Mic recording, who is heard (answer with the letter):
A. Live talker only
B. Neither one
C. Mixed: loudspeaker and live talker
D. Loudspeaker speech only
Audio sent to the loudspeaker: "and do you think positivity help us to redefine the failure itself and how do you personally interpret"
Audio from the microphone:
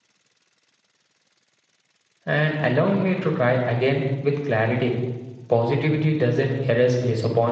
A